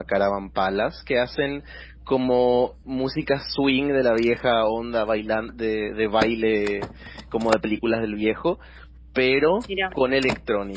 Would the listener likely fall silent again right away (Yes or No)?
Yes